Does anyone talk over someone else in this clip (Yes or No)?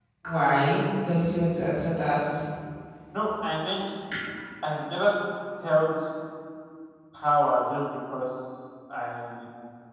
No